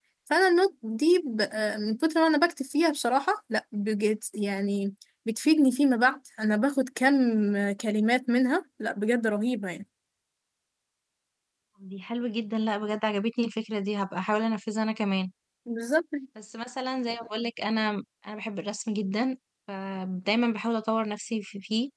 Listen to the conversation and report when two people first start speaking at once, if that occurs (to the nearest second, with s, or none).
none